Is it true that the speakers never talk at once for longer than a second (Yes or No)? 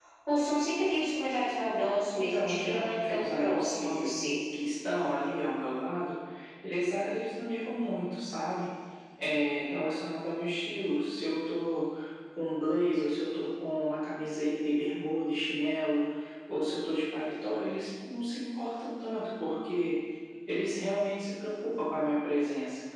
No